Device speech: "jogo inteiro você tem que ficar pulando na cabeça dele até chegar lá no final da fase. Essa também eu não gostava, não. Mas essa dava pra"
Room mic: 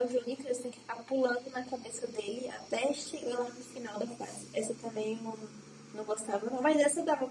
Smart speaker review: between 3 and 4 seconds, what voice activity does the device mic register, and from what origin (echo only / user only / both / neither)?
echo only